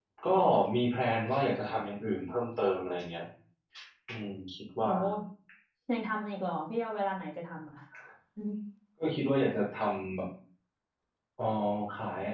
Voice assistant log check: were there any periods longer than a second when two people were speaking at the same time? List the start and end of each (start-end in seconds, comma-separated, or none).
none